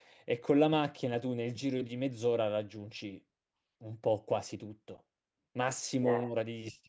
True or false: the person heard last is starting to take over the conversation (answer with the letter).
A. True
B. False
B